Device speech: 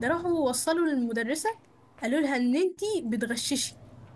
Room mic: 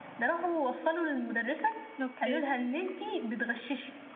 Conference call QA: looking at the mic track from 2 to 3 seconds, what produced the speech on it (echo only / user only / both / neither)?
both